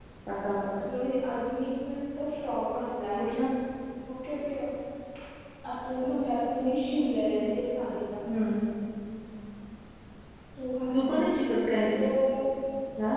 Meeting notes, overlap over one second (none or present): none